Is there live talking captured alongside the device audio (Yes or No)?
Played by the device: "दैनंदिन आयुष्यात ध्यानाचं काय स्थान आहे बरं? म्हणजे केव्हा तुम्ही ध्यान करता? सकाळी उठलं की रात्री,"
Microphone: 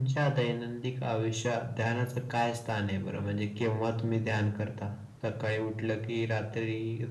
No